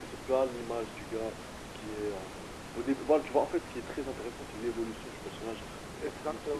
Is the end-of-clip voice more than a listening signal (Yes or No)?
Yes